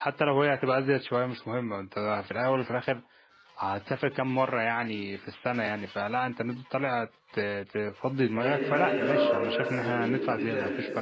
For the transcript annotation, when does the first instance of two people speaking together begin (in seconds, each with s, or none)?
8.3 s